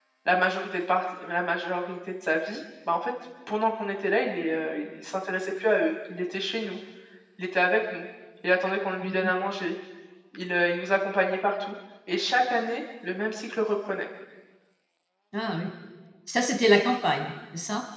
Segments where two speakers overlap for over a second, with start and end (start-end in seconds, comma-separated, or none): none